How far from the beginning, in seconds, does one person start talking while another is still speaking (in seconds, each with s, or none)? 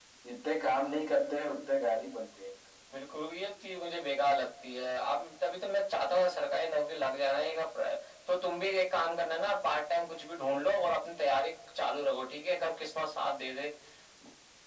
none